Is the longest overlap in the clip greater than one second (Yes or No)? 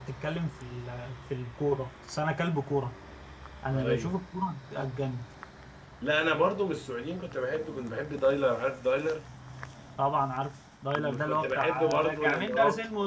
Yes